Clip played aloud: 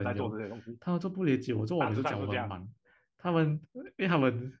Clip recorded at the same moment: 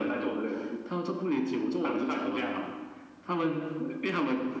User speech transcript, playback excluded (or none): none